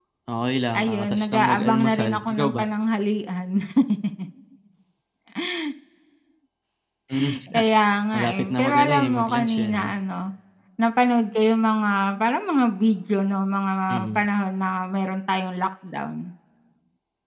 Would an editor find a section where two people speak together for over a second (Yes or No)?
Yes